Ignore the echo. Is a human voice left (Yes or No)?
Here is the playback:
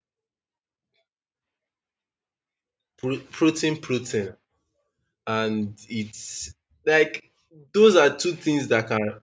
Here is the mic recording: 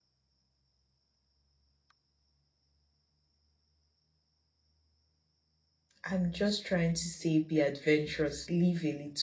Yes